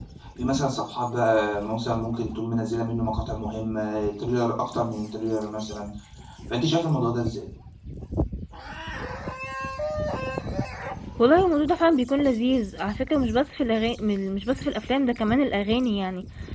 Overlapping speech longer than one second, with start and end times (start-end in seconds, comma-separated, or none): none